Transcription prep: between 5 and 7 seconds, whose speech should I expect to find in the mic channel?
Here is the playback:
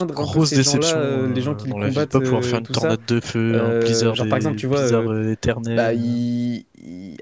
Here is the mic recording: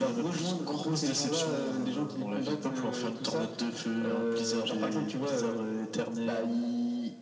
echo only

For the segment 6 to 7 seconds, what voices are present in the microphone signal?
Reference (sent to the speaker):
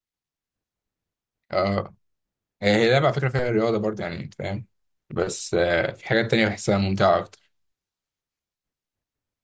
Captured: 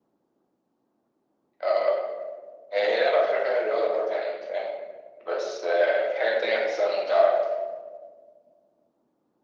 echo only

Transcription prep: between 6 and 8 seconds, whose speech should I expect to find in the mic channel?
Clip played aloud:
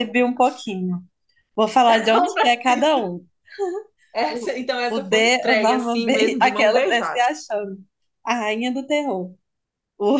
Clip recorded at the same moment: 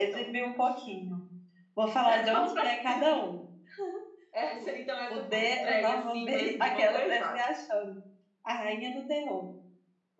echo only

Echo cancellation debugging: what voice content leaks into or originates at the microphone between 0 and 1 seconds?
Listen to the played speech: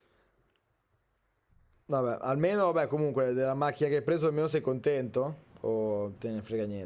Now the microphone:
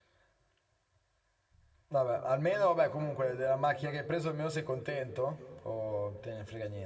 neither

